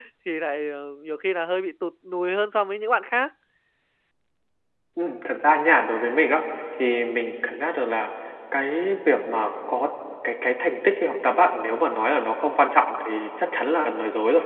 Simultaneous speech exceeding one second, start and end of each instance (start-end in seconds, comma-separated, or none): none